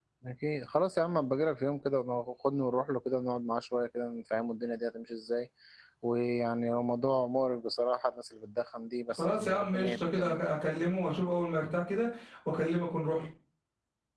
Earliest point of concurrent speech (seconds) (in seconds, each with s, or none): 9.2 s